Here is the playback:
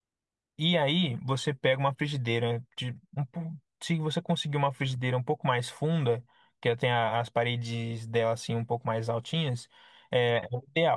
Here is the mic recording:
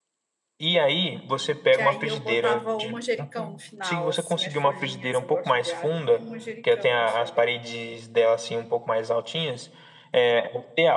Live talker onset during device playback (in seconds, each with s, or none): 1.7 s